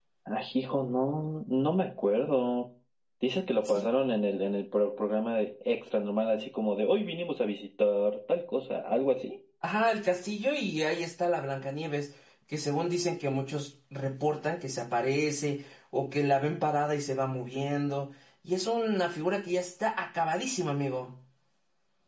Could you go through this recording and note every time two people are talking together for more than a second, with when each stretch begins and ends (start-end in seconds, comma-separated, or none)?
none